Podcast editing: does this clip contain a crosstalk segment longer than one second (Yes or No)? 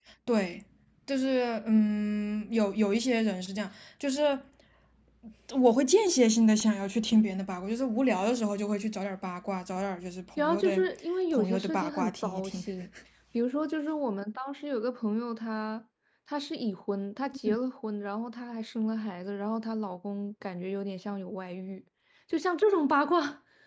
Yes